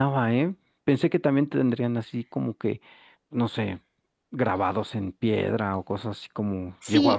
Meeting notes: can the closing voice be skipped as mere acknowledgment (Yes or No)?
No